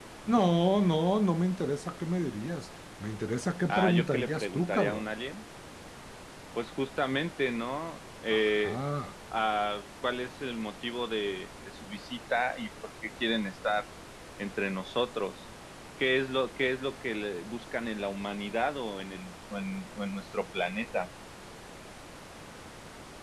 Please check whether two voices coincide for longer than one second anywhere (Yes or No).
Yes